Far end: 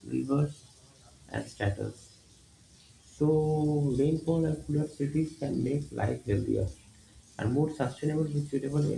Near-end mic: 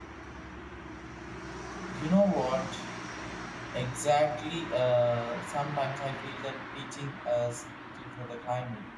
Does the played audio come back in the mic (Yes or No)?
No